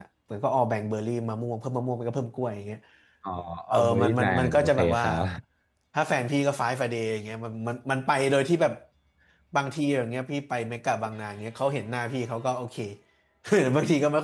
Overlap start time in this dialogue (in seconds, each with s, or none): 3.7 s